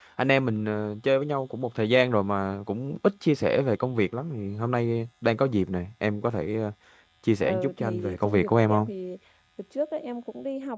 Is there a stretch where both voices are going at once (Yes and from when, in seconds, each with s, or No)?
Yes, from 7.4 s